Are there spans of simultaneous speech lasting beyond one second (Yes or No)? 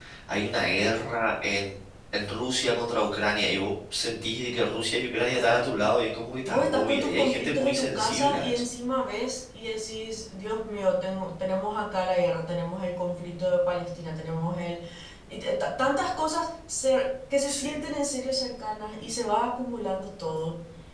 Yes